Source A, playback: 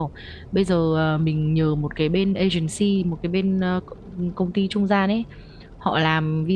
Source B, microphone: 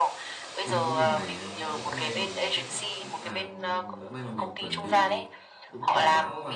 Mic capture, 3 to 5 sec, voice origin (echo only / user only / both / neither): both